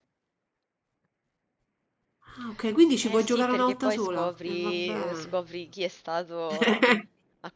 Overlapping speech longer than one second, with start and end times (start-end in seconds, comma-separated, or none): 3.0-5.2